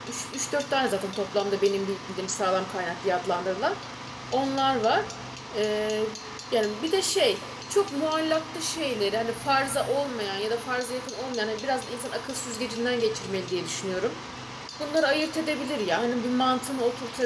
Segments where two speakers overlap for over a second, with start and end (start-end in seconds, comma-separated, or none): none